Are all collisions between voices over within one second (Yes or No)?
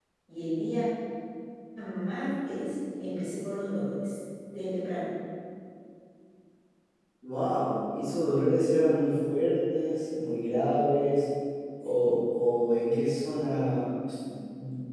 Yes